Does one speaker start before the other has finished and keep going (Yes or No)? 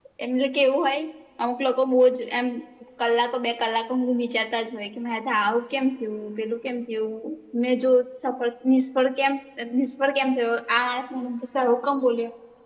No